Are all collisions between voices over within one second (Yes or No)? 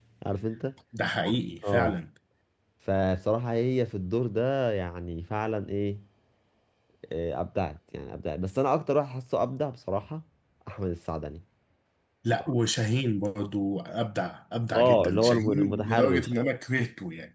No